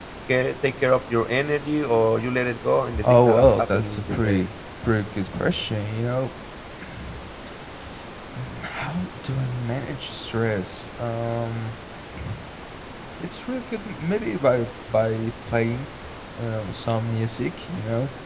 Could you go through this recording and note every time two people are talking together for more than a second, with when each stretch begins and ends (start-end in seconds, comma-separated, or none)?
3.1-4.4